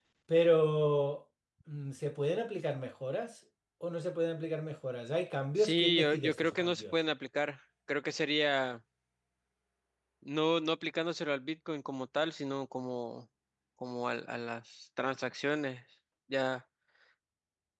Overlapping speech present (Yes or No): Yes